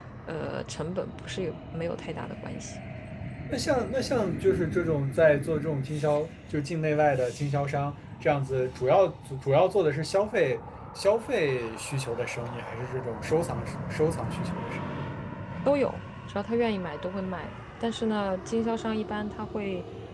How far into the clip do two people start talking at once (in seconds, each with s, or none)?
none